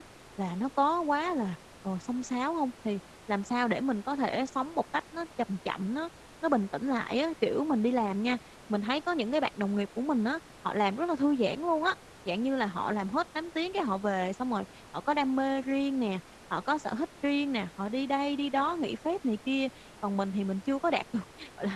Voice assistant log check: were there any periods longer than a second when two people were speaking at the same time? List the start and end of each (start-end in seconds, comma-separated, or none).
none